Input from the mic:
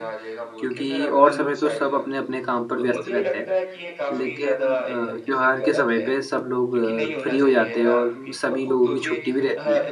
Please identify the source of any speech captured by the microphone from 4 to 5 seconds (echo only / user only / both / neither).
both